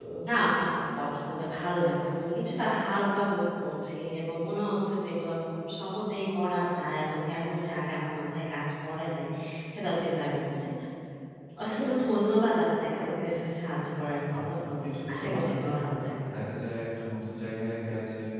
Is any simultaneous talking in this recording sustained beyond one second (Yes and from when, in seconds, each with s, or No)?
Yes, from 14.3 s